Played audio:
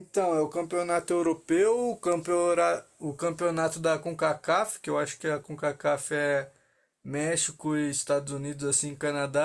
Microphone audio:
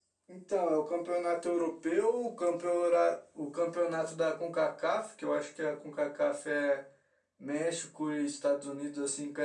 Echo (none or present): present